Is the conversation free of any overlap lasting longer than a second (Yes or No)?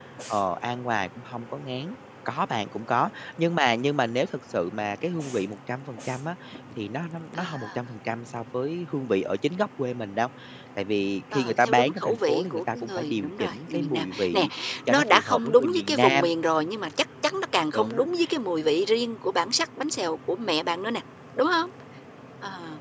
No